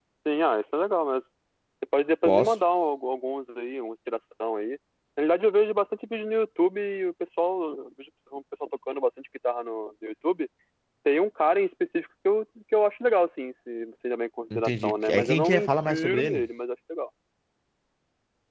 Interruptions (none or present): present